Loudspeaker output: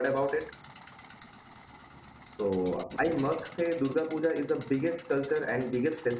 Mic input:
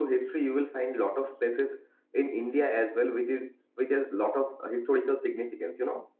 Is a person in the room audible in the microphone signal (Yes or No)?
Yes